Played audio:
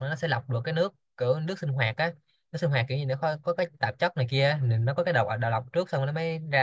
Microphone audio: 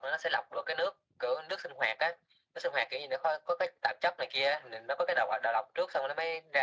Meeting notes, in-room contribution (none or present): none